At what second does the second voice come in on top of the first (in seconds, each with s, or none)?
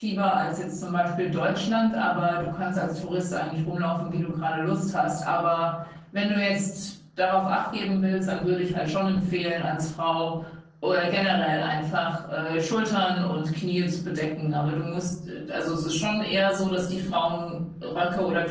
none